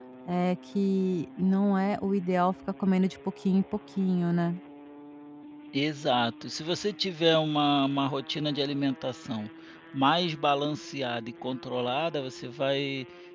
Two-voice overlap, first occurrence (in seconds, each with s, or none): none